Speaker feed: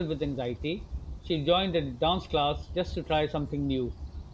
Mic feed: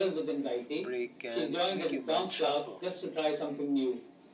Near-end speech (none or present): present